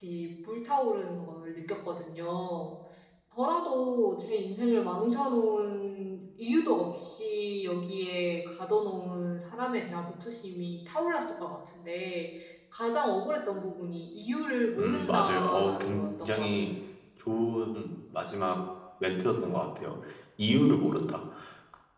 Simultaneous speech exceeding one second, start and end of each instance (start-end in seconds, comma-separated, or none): 14.8-16.5